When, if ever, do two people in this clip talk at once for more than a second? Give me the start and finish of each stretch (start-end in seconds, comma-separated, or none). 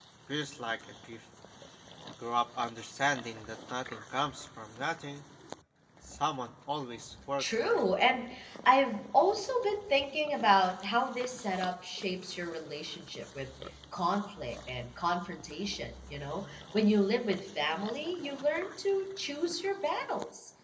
none